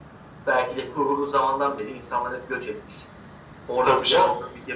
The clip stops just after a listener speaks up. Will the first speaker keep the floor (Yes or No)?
Yes